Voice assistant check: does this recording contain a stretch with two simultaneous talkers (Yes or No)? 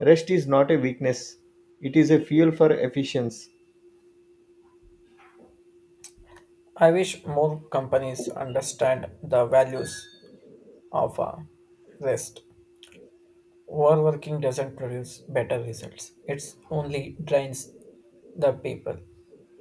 No